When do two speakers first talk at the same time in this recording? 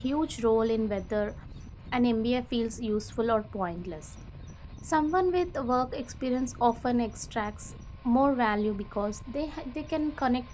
none

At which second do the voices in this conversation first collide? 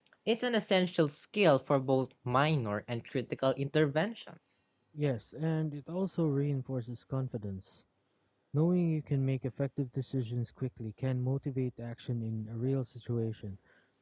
none

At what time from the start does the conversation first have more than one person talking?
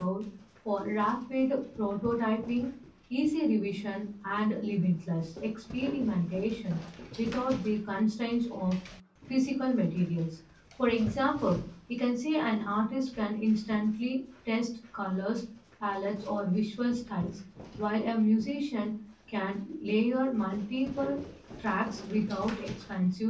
none

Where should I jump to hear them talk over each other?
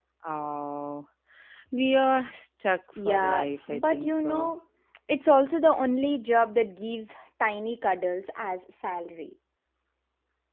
3.0 s

